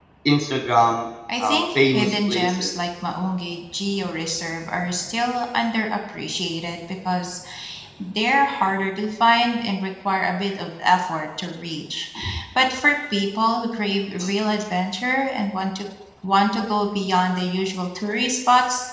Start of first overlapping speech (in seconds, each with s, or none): 1.3 s